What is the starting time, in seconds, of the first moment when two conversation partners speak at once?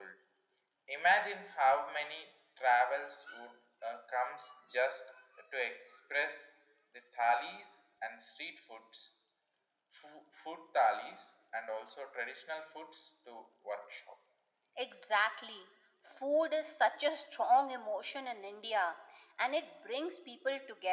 none

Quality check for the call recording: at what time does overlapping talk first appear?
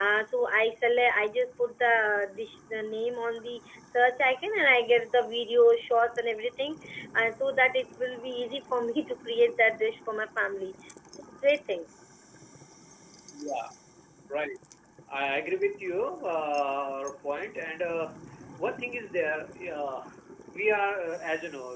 none

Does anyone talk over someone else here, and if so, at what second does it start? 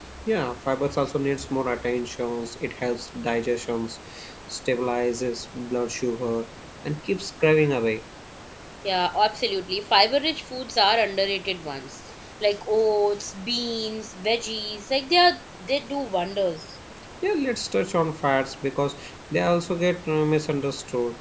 none

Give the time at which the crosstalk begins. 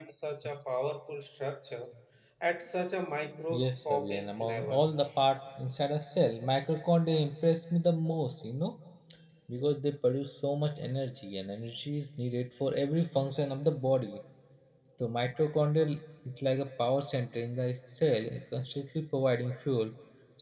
4 s

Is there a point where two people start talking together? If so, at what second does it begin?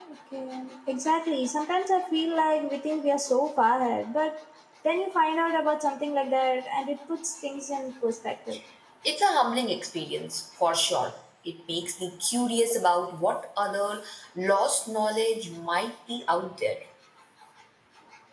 none

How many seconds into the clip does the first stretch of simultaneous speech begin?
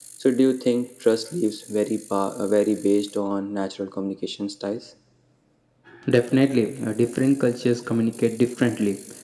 none

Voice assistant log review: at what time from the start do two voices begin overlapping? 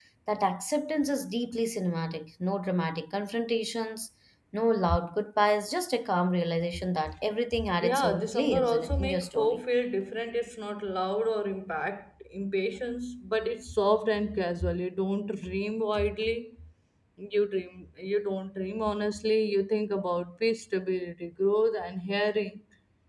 8 s

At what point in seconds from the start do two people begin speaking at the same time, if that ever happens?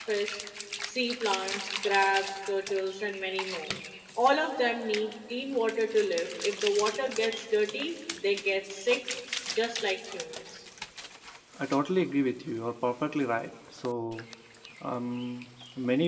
none

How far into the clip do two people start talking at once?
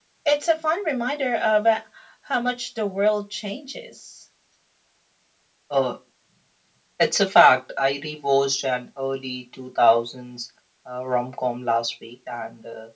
none

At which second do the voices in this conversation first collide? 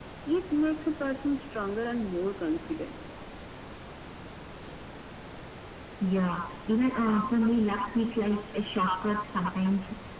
none

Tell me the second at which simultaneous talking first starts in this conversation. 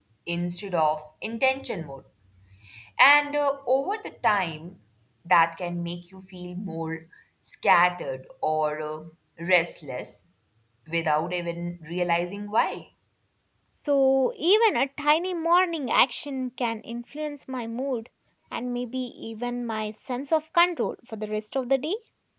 none

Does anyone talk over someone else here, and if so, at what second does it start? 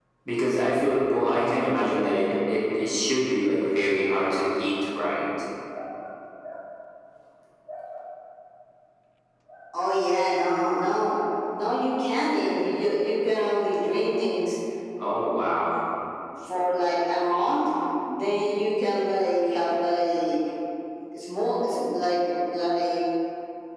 none

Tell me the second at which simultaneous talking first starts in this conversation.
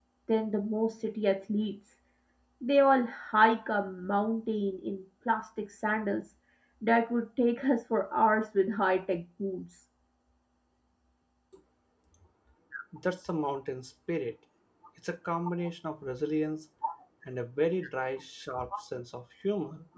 none

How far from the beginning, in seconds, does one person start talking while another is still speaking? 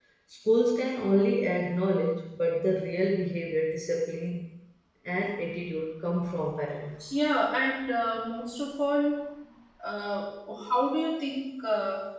none

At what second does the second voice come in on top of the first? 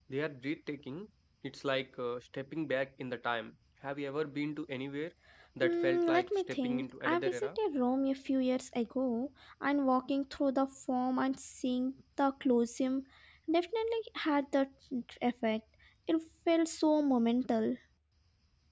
6 s

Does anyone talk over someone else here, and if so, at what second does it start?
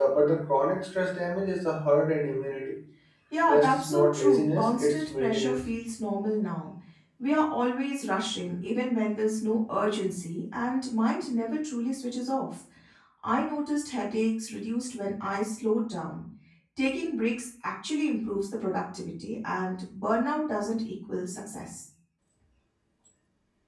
3 s

